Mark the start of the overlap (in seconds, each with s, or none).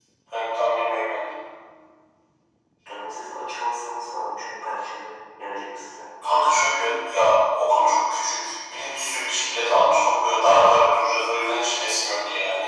none